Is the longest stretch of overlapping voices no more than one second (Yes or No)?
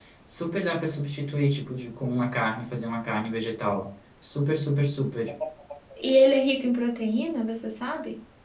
Yes